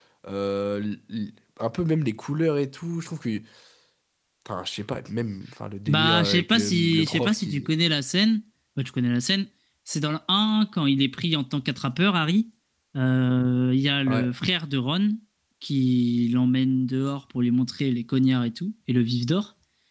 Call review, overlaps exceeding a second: present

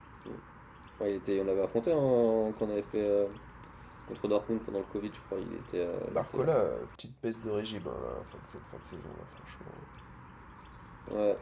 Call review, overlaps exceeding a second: none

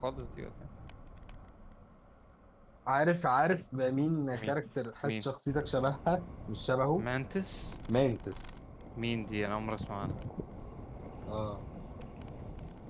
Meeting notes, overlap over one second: none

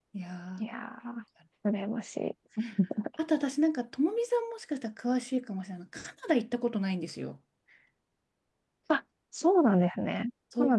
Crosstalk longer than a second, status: none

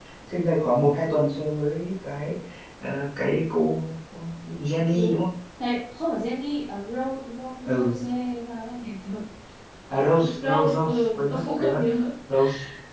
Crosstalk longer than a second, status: present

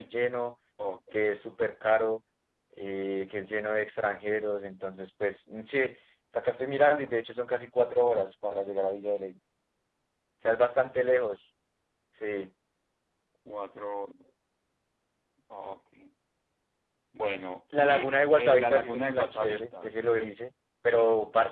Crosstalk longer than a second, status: present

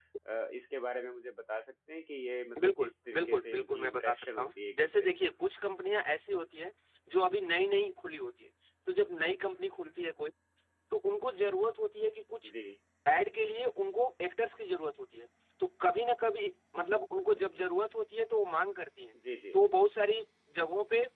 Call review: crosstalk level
present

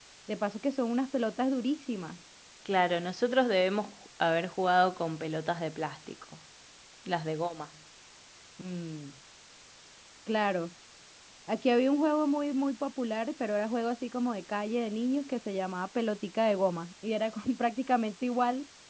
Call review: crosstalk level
none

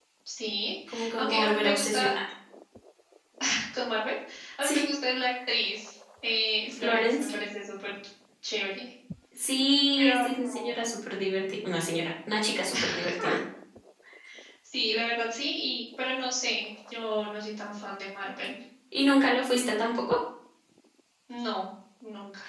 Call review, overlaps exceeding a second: present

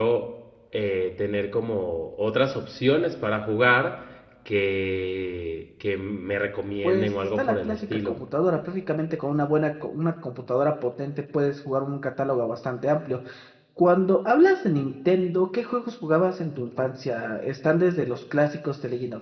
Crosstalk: present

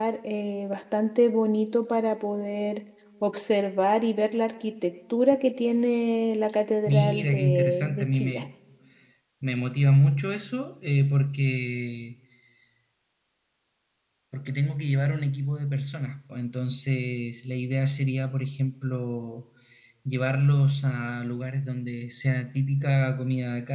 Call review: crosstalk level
present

